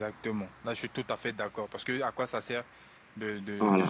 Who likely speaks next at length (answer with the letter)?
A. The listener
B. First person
B